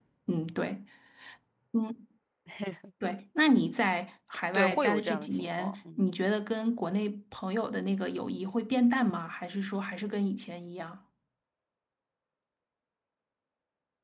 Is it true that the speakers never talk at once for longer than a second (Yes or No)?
No